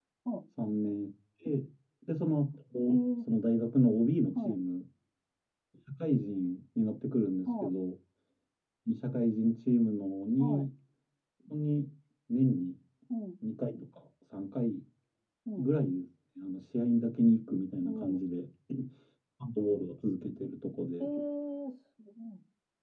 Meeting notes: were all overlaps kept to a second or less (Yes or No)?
Yes